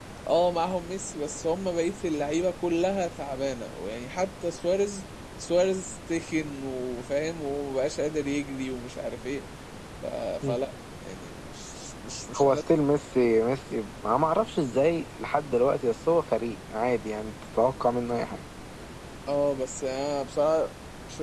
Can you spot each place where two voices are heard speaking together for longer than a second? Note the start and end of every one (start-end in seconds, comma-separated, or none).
none